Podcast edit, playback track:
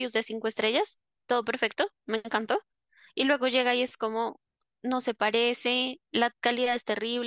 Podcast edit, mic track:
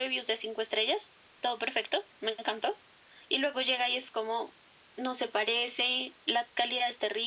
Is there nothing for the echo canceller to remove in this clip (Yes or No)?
No